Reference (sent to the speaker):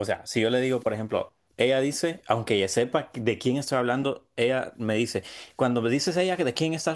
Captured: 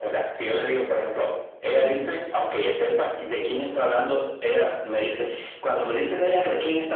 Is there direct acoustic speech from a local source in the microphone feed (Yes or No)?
Yes